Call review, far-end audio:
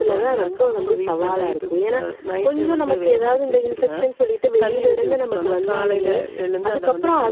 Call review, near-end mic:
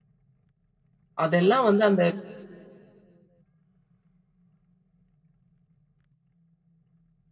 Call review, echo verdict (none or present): none